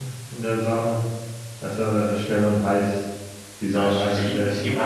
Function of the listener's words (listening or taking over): taking over